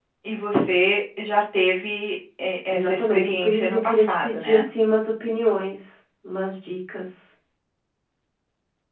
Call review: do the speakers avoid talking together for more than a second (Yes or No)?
No